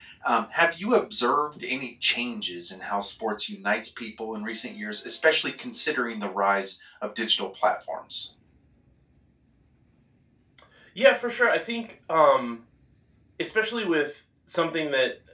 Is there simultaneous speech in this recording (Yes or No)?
No